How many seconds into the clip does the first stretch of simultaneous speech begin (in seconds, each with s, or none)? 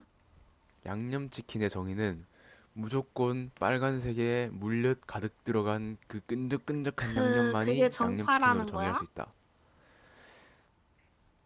7.0 s